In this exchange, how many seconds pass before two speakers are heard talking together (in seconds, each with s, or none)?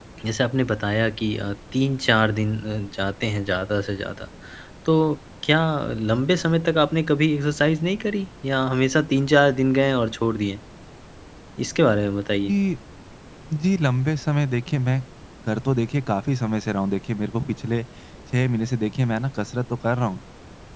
none